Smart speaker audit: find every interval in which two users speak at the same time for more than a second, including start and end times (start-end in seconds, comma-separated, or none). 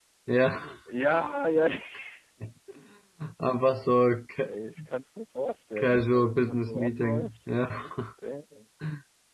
5.8-7.3